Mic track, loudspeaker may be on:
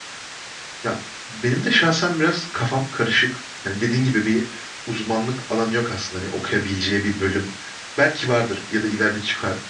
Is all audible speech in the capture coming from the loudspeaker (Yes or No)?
No